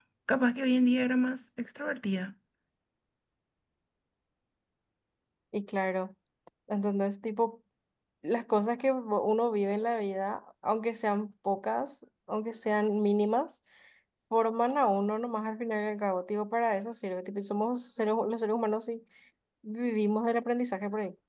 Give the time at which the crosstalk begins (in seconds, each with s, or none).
none